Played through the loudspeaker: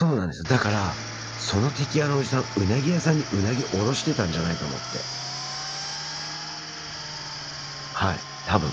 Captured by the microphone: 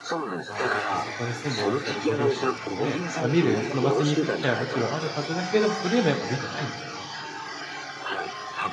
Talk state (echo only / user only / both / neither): both